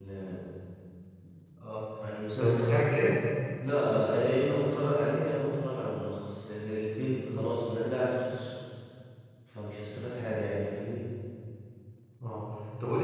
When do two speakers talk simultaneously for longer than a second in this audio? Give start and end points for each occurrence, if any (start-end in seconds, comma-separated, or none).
none